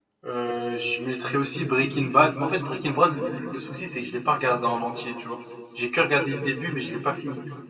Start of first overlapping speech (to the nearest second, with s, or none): none